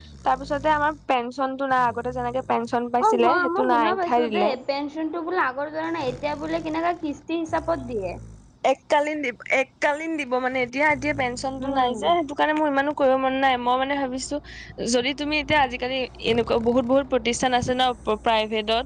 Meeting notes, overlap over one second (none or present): present